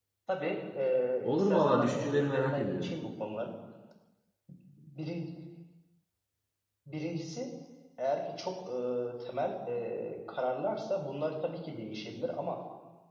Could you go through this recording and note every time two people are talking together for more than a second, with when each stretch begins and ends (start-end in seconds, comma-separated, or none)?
1.2-2.9